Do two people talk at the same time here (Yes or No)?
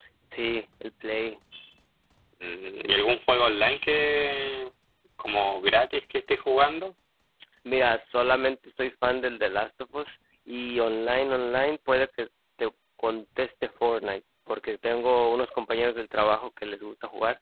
No